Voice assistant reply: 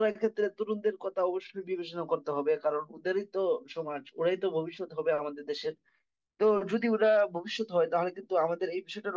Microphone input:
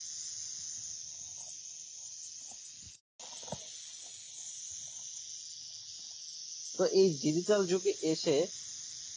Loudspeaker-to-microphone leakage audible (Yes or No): No